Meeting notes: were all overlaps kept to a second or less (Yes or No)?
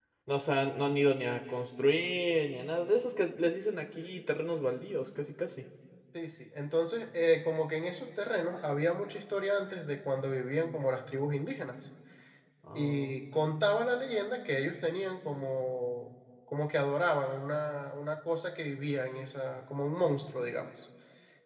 Yes